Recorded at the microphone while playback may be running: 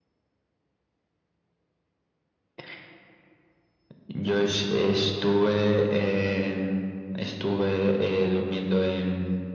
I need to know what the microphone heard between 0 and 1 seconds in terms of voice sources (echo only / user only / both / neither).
neither